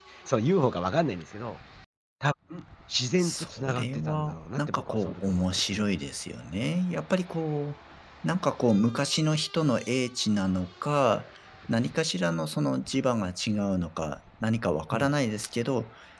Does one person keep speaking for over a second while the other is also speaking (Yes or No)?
Yes